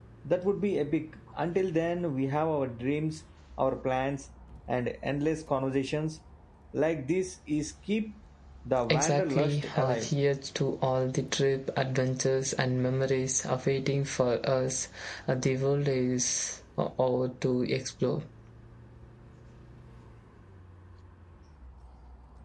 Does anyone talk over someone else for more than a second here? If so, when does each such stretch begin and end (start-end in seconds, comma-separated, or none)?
8.9-10.1